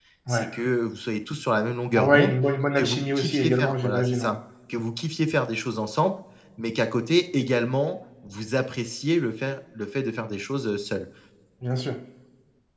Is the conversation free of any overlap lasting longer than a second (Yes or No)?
No